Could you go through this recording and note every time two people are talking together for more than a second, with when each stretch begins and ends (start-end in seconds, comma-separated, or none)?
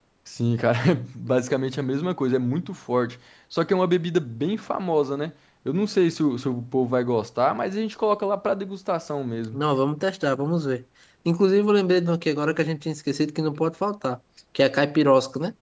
none